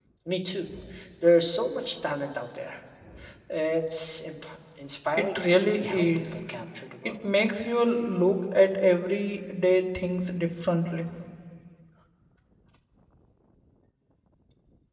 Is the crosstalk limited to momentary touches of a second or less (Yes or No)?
No